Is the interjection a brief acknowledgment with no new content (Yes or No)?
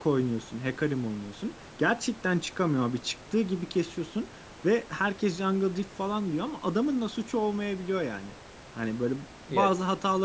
Yes